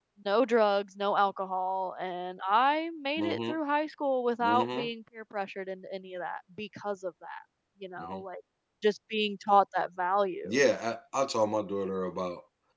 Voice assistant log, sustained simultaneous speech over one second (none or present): none